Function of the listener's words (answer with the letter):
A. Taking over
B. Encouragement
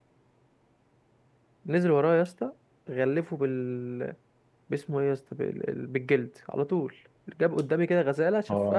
B